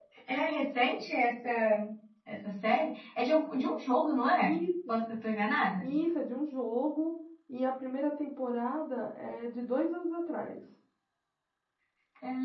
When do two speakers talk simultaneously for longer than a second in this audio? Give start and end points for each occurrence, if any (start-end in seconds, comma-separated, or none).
none